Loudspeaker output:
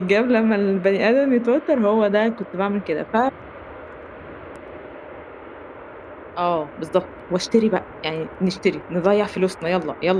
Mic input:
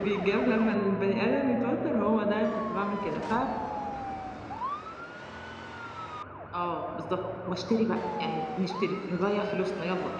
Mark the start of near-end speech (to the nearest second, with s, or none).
none